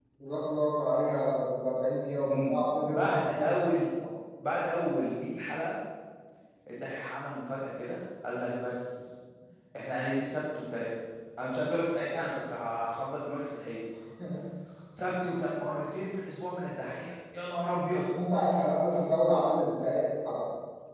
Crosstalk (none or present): present